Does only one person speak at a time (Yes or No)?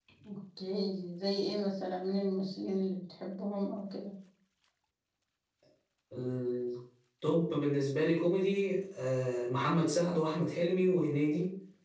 Yes